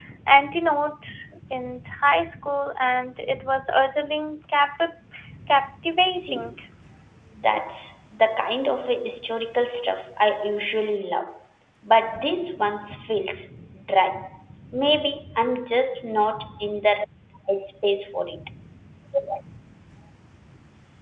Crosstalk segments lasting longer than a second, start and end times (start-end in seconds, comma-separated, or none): none